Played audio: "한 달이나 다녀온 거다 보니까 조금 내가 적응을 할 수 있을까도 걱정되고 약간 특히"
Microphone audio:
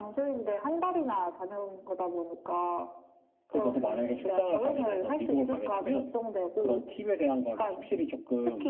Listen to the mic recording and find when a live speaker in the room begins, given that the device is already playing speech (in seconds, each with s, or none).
3.5 s